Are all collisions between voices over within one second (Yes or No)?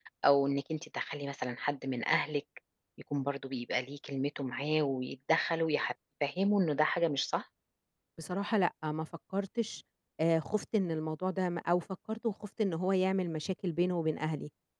Yes